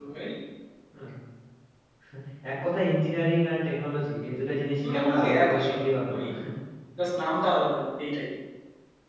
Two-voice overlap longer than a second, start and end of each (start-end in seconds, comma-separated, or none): 4.9-6.2